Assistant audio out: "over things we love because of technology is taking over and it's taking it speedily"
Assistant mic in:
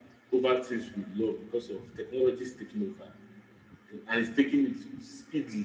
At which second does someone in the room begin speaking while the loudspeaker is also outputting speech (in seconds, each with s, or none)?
none